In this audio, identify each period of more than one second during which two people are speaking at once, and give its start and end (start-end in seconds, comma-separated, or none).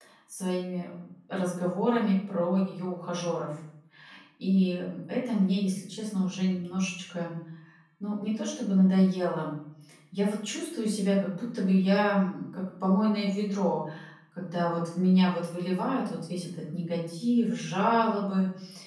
none